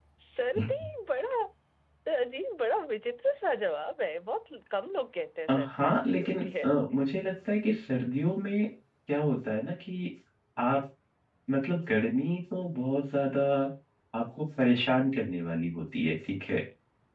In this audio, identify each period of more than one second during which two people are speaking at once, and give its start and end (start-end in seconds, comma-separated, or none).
5.5-6.7